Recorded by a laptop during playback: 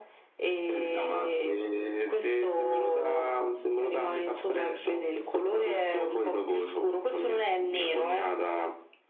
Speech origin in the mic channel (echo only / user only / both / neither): echo only